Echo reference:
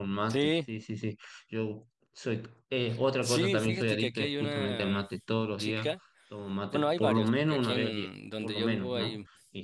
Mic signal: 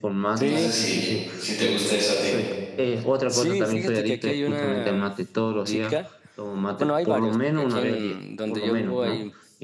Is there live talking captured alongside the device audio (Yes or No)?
Yes